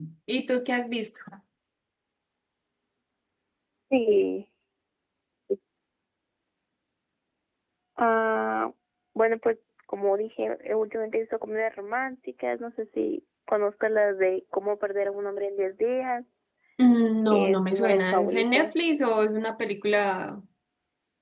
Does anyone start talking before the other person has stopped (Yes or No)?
Yes